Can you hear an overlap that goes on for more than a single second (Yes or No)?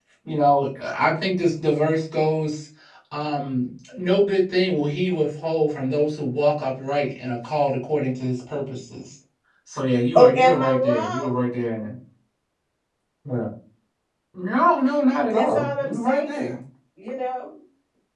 Yes